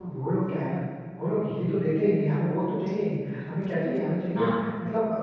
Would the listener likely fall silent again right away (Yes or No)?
Yes